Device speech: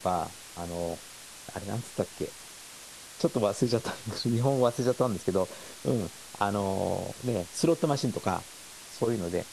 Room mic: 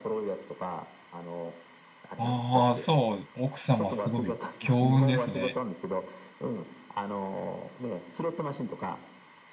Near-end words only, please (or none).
ああ、そう、奥様すごい強運ですね。